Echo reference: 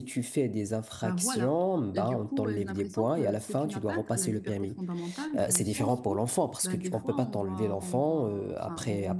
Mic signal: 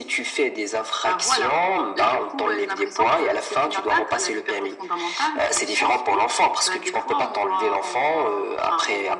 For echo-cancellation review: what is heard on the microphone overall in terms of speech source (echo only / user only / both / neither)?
echo only